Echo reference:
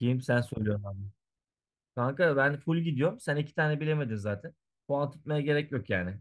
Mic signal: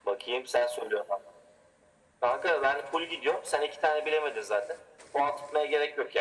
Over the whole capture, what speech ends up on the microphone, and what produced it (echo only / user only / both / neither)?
echo only